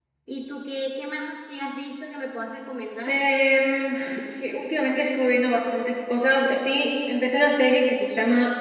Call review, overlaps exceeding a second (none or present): none